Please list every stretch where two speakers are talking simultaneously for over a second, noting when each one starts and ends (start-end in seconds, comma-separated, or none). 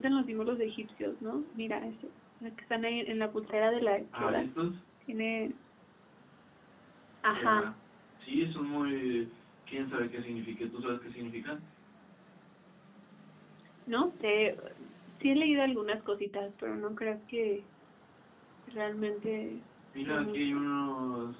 none